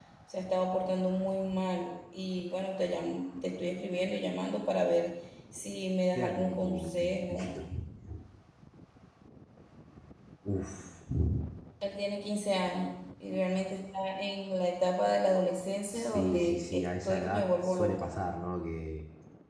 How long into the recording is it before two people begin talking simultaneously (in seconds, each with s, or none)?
6.1 s